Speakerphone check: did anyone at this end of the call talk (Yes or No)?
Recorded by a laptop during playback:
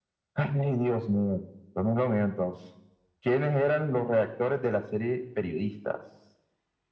No